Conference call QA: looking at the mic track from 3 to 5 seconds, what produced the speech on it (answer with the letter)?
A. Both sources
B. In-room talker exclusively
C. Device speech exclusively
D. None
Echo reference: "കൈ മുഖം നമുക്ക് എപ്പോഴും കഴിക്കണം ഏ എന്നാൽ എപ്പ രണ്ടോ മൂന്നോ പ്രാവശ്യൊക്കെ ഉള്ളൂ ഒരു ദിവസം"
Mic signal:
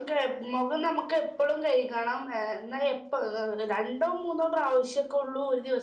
C